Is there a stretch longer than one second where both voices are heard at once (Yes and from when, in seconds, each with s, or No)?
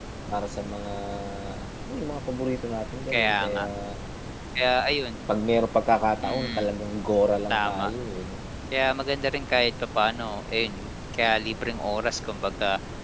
No